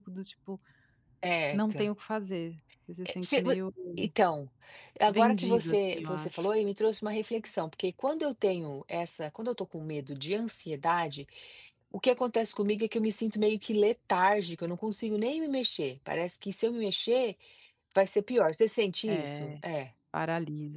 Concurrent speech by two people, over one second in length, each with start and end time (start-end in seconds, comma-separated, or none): 5.1-6.5